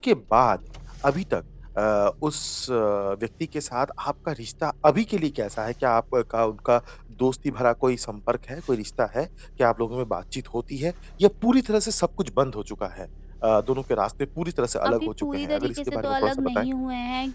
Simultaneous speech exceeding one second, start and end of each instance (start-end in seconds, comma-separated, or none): 14.9-16.7